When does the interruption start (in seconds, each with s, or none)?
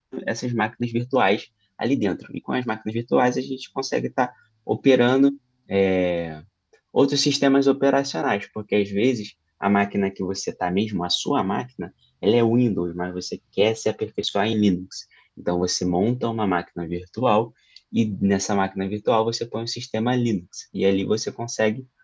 none